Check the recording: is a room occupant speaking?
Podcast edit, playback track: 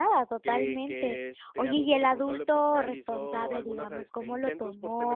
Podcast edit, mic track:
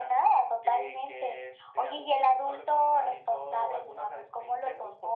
No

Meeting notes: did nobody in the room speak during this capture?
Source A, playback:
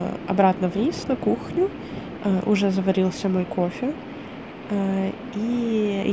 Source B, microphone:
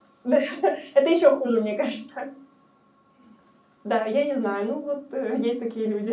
No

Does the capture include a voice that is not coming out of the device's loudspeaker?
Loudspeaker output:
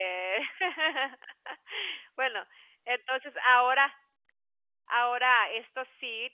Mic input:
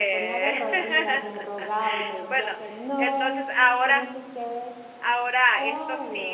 Yes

